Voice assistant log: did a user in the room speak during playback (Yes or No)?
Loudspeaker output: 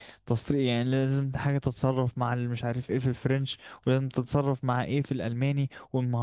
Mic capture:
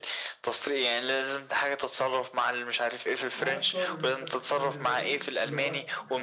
Yes